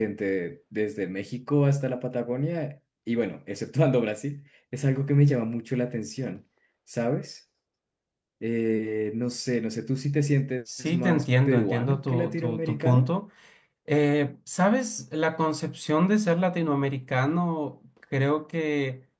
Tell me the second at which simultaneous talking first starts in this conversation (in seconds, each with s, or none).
10.7 s